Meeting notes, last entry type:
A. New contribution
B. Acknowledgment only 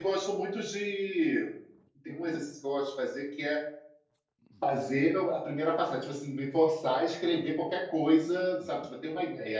B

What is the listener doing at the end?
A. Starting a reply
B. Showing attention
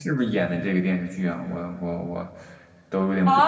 A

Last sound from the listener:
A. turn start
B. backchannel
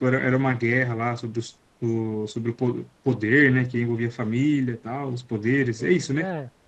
A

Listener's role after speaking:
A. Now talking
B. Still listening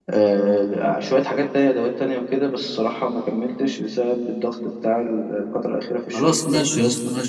A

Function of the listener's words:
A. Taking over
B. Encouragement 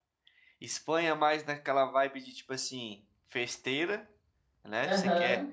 B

